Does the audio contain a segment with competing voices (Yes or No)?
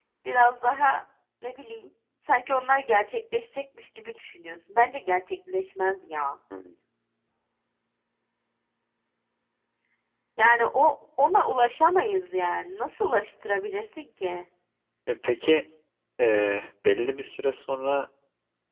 No